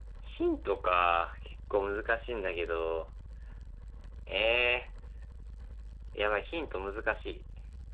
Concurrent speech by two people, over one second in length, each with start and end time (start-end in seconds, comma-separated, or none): none